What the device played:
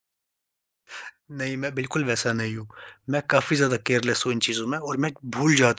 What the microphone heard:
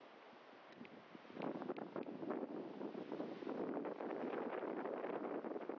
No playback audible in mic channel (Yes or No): Yes